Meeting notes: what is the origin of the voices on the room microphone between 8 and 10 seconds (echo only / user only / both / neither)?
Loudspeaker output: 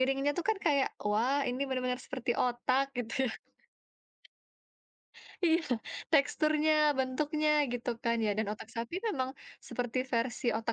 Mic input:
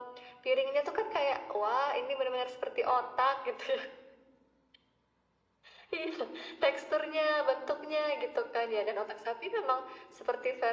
echo only